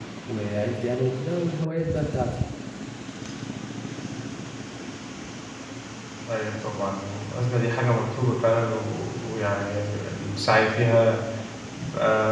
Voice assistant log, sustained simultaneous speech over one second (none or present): none